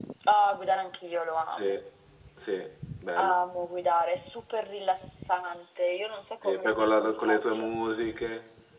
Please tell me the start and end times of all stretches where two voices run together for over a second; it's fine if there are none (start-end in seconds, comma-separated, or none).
6.4-7.7